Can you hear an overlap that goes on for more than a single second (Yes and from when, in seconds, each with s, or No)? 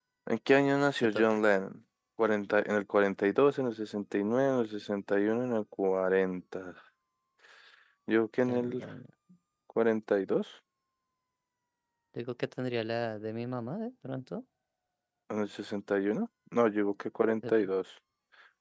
No